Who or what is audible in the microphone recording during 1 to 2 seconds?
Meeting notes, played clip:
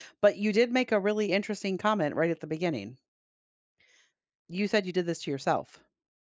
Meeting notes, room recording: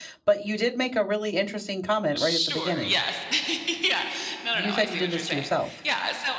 echo only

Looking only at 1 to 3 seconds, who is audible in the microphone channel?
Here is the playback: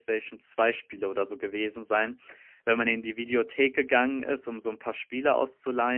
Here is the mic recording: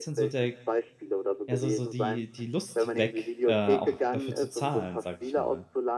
both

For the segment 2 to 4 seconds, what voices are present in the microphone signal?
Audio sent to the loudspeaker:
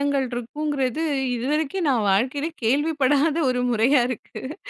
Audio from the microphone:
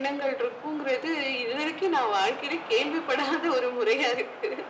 echo only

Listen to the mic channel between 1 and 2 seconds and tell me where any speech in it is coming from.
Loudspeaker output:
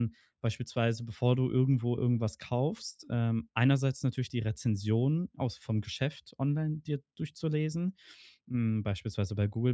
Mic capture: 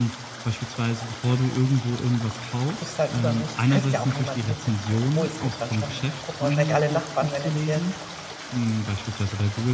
echo only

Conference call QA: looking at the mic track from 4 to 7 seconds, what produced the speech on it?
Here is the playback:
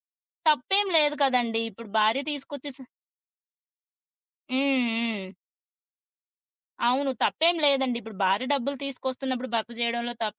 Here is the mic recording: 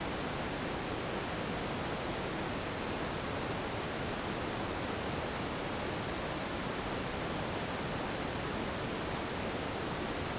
neither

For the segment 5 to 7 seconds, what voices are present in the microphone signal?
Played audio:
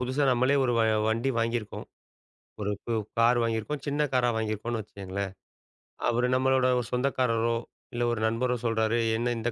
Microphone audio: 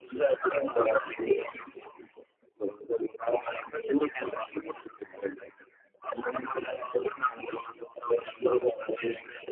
echo only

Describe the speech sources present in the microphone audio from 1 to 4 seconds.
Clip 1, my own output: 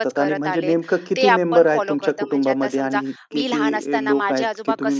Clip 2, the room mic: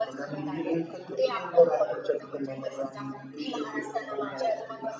echo only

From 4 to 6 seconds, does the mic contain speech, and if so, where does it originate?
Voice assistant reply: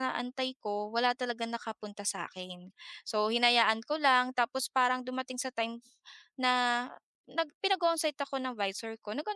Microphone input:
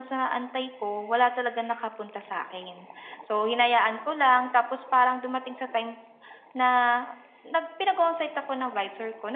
echo only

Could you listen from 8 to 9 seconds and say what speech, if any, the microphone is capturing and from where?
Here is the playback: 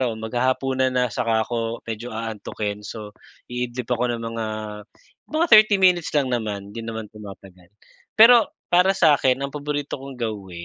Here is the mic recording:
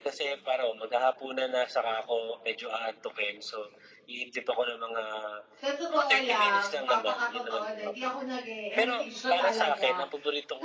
both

